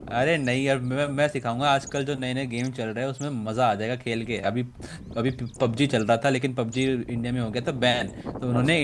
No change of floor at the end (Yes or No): Yes